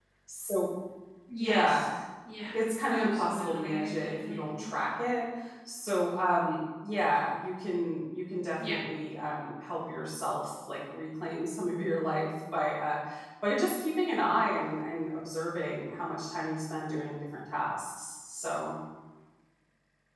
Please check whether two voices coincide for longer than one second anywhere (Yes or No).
Yes